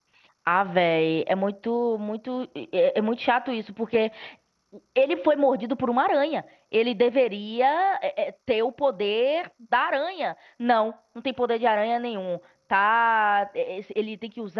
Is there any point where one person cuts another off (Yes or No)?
No